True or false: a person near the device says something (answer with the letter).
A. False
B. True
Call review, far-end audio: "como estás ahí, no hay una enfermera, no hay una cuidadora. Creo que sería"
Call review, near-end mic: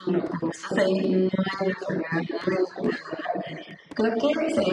A